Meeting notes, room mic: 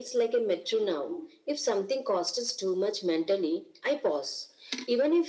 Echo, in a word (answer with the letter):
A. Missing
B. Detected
B